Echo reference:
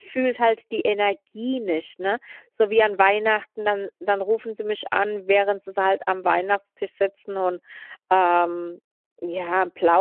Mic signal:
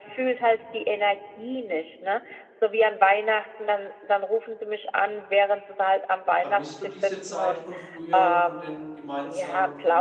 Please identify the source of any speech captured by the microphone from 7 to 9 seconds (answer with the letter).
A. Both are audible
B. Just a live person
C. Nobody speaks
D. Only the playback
A